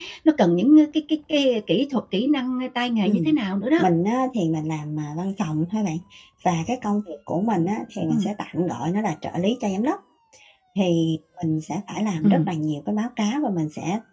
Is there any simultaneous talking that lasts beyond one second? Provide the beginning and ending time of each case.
none

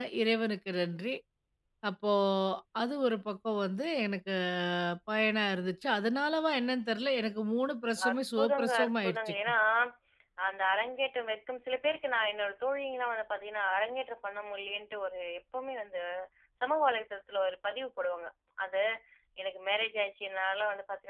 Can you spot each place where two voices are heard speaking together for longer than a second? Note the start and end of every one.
8.1-9.3

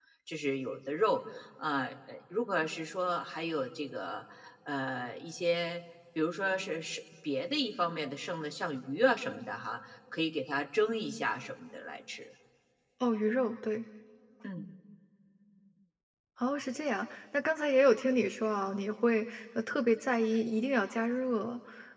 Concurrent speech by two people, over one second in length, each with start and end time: none

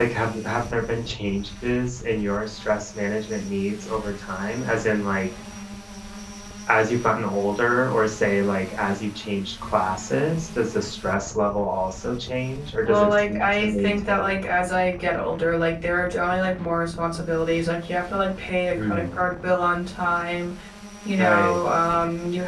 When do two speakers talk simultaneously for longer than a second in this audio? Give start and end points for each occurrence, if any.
12.8-14.4

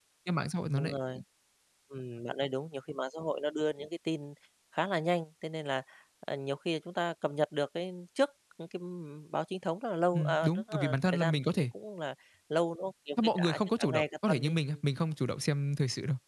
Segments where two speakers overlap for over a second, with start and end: 10.1-11.6, 13.4-14.8

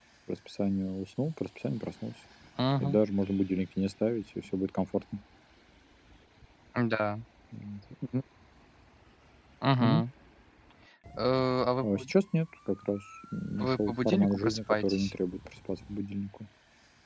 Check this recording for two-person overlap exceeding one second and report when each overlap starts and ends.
13.6-15.1

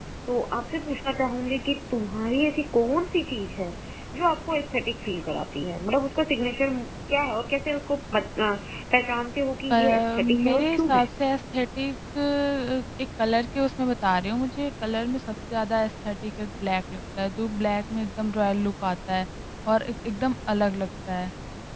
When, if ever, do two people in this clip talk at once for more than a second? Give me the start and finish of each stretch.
9.7-11.0

